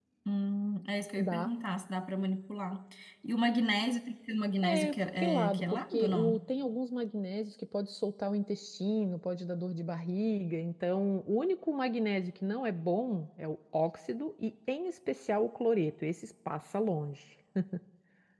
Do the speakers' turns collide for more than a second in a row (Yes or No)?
Yes